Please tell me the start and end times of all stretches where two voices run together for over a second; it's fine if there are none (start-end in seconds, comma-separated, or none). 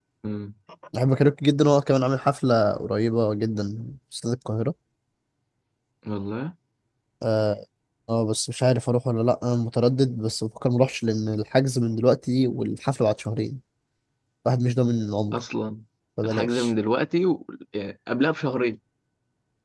none